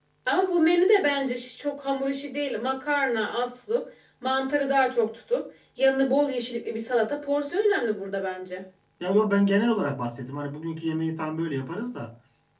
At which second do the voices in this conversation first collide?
none

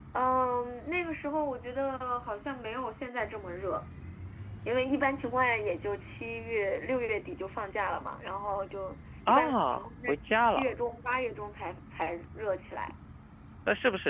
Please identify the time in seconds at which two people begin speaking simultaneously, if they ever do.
9 s

